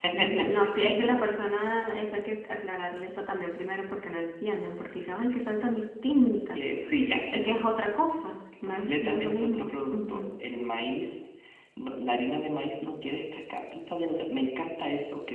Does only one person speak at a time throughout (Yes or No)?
No